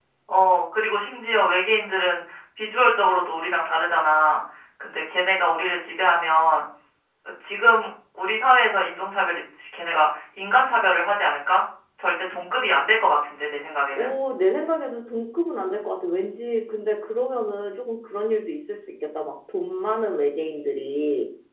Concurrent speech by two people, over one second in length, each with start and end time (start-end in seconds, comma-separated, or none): none